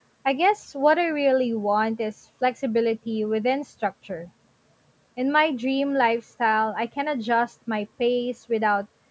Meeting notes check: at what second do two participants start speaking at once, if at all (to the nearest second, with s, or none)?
none